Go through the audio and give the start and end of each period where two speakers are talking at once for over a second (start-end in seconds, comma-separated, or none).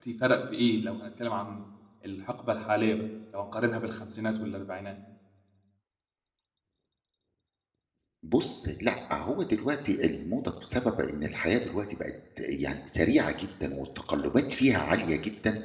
none